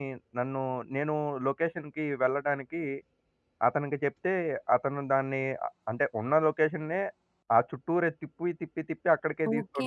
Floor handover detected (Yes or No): Yes